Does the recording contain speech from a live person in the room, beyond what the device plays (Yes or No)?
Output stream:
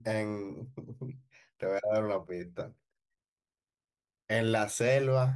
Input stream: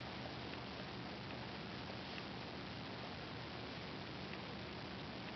No